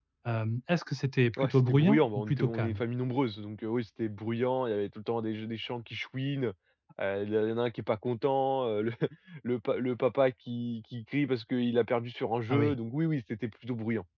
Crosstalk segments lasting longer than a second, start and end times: 1.4-2.8

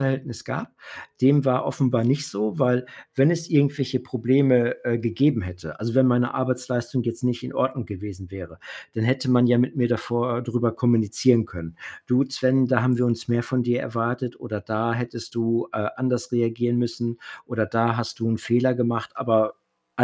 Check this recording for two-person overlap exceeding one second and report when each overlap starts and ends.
none

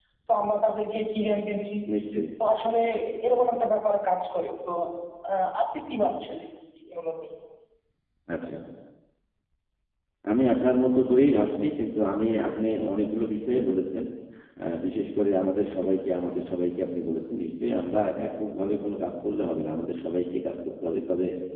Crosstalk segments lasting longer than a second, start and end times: none

